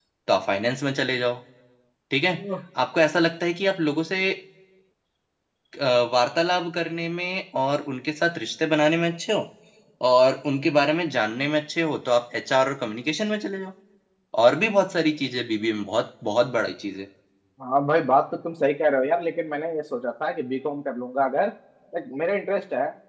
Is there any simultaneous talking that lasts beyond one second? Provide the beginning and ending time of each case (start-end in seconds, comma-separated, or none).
none